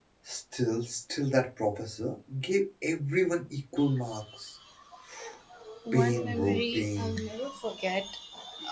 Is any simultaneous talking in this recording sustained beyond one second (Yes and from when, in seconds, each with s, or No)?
Yes, from 5.9 s